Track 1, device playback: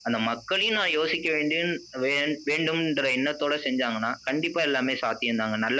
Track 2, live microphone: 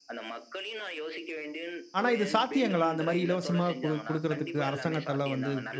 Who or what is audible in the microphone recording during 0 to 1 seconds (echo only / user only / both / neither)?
echo only